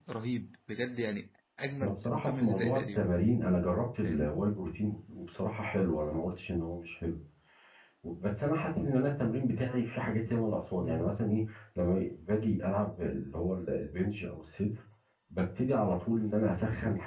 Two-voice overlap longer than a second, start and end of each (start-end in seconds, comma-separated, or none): 1.8-3.0